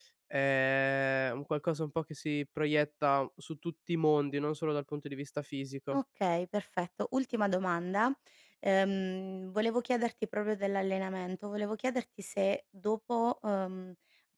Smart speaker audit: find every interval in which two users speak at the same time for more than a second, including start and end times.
none

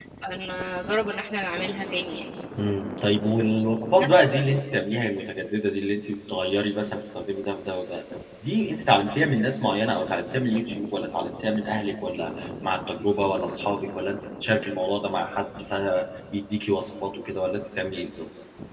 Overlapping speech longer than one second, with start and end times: none

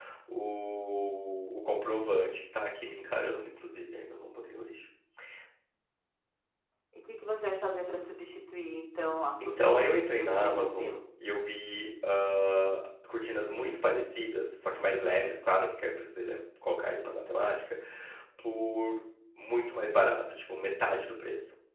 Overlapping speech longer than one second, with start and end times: 9.4-10.9

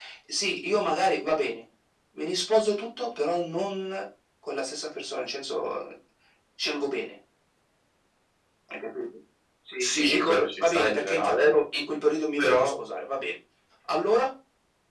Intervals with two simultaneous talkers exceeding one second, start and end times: 9.8-11.6

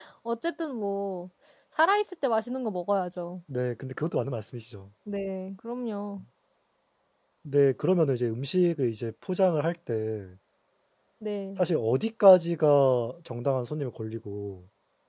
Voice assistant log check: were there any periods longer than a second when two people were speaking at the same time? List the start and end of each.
none

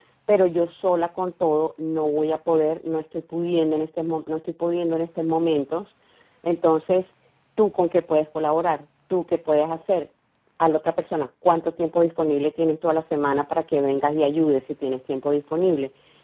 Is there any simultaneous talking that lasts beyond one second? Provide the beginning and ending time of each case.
none

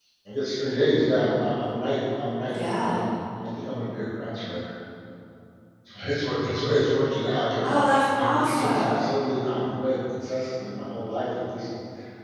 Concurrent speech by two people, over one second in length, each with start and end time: 7.6-9.1

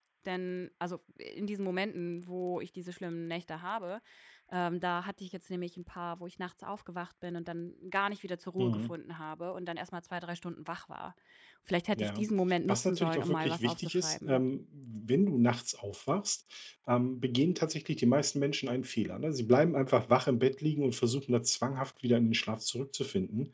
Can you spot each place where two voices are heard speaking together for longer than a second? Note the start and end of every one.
12.7-14.4

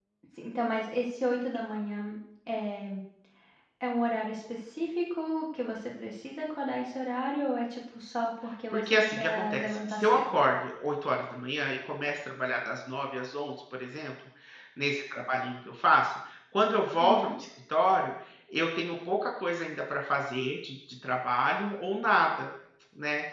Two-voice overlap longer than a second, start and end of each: 8.7-10.3

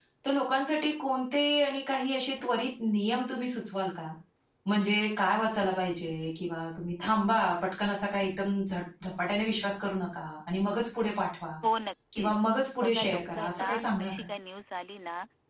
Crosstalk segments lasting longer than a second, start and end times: 12.8-14.2

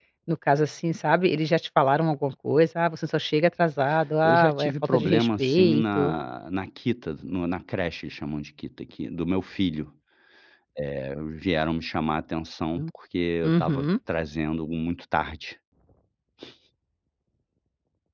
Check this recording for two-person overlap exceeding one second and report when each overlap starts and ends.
4.2-6.1

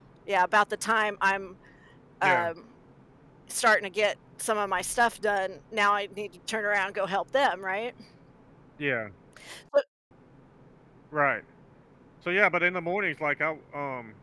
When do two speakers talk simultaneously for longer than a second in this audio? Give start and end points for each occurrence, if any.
none

